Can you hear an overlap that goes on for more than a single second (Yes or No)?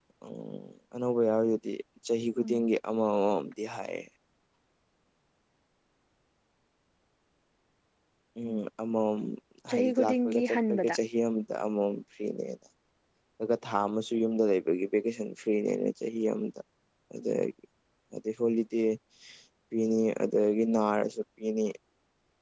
Yes